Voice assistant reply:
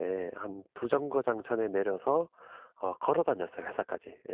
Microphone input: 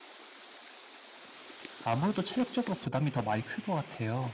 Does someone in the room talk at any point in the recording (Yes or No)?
Yes